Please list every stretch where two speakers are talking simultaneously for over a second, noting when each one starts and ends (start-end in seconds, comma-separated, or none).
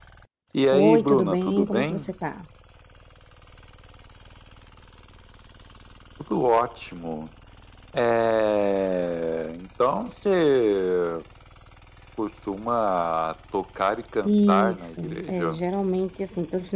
0.7-2.0, 14.2-15.6